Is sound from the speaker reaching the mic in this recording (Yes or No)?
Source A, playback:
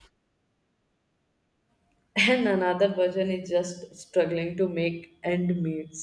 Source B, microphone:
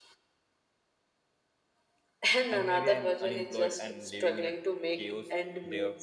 Yes